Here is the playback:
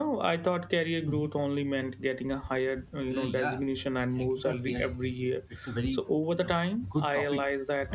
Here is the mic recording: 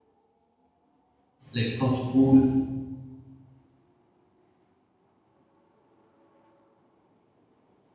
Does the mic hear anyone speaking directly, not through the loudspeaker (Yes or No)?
Yes